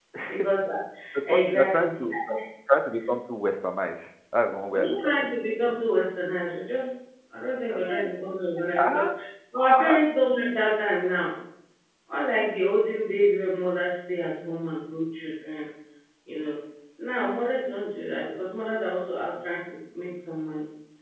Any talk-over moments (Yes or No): Yes